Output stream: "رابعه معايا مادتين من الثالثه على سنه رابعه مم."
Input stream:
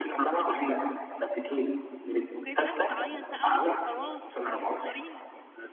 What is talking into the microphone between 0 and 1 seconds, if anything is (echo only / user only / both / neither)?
echo only